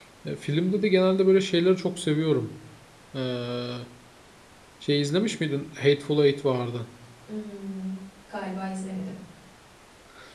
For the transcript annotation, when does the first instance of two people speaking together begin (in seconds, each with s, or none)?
none